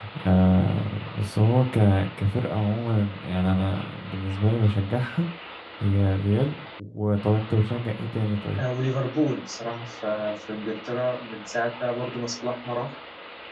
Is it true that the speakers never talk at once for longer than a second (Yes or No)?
Yes